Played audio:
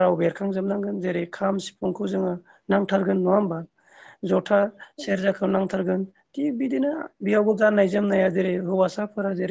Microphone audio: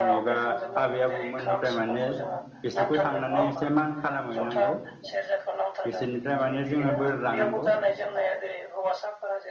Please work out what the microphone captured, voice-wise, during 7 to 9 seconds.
both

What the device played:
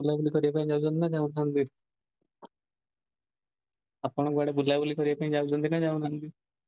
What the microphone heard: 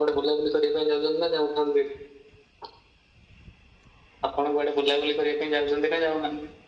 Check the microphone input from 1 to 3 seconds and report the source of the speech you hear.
echo only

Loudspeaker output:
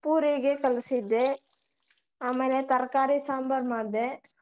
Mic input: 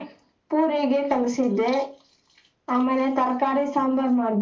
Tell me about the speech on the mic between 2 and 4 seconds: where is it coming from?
echo only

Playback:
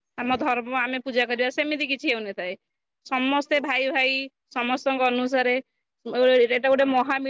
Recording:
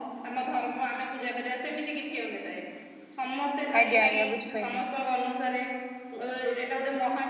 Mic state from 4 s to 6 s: both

